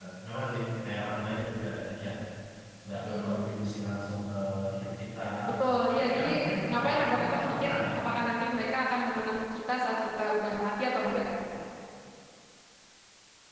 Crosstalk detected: Yes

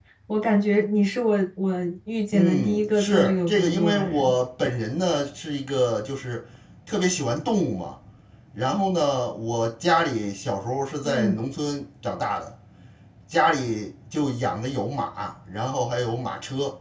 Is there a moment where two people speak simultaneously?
Yes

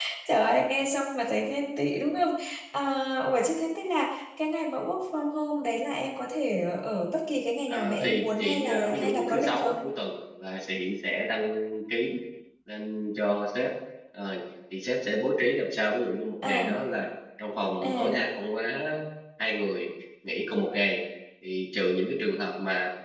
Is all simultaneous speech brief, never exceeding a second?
No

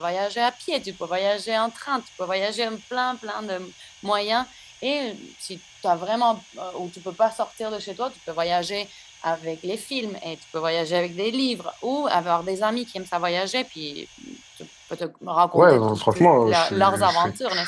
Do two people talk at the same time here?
Yes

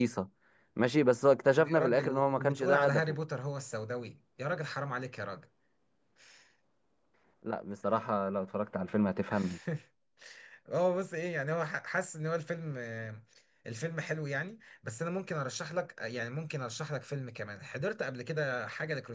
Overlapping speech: Yes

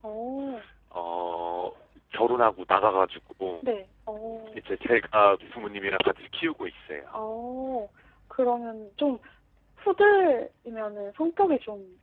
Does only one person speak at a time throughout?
Yes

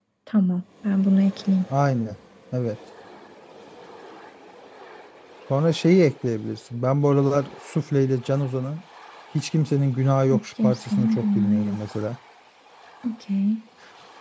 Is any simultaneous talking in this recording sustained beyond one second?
Yes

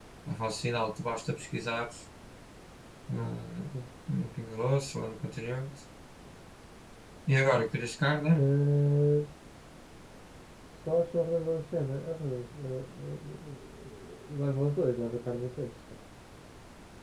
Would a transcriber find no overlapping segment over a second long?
Yes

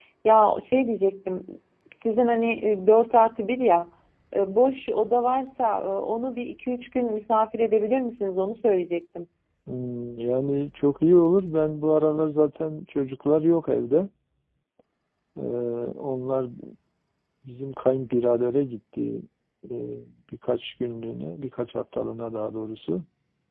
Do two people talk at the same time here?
No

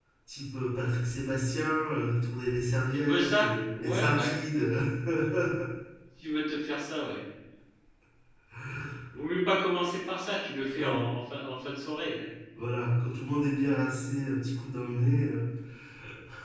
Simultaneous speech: Yes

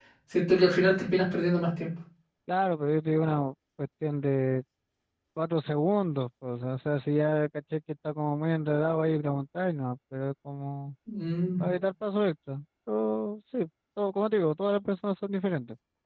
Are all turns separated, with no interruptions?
Yes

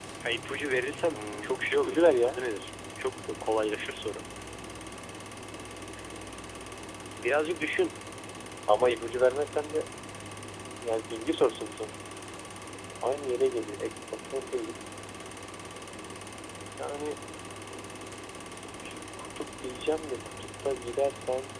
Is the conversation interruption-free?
No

